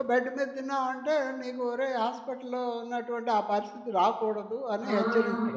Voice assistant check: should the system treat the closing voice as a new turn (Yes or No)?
Yes